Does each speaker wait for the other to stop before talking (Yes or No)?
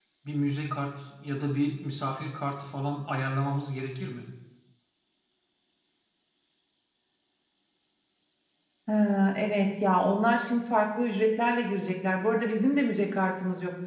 Yes